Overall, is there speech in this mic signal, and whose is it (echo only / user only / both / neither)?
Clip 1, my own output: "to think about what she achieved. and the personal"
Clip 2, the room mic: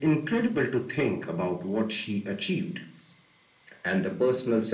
echo only